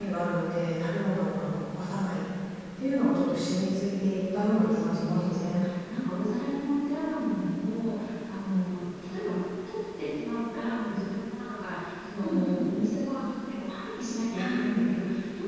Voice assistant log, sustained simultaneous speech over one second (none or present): present